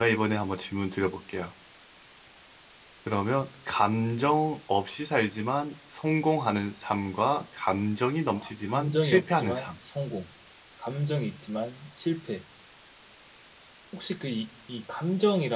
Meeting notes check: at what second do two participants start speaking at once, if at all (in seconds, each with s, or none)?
8.3 s